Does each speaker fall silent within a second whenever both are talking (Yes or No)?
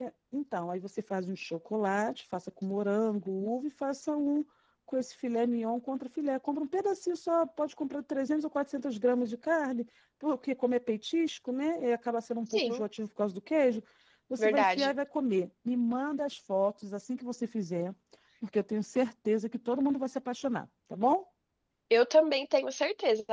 Yes